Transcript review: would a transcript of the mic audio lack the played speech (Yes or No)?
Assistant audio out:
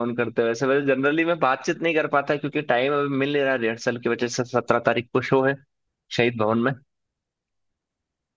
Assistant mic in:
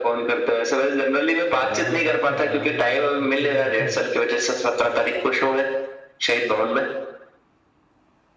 No